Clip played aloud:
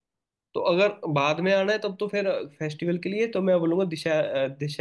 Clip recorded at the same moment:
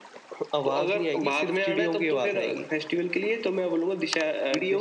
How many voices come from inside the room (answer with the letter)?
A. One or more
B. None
A